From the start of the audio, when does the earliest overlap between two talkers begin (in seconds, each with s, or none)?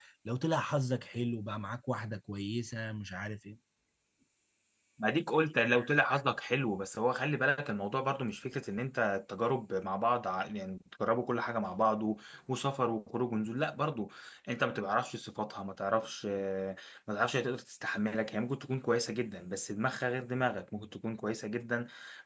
none